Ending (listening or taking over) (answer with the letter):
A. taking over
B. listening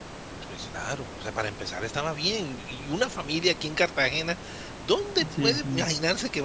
B